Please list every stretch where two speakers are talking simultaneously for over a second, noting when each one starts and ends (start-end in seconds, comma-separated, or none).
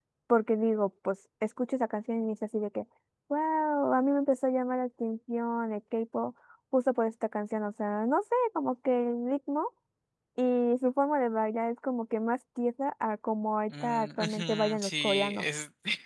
13.7-15.4